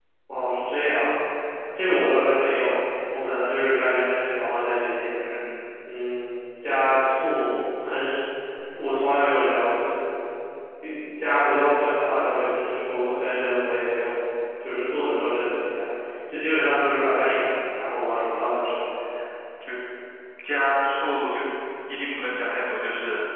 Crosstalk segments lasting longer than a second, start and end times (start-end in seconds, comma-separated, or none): none